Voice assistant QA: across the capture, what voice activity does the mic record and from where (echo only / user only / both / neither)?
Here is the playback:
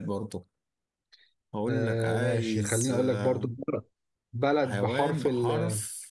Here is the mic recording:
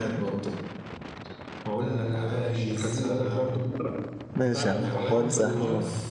both